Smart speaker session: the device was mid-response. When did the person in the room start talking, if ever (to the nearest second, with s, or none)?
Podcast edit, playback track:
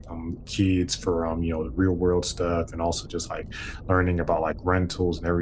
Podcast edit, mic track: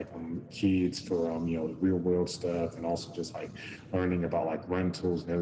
none